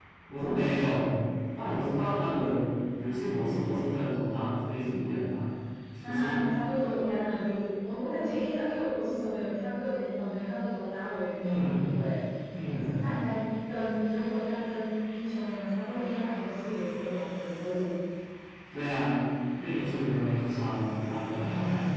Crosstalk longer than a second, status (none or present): none